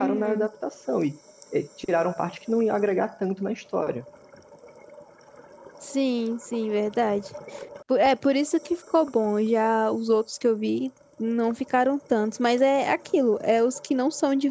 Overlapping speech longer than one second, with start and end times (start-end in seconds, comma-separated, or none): none